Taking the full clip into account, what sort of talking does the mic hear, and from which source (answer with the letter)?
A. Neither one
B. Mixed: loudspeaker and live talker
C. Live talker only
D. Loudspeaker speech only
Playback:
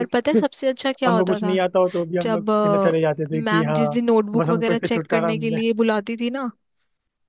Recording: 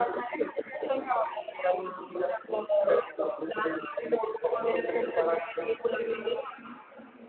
D